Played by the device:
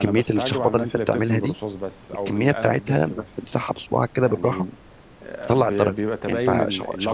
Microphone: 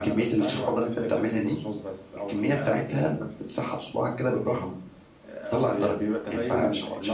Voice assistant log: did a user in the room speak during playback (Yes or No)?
No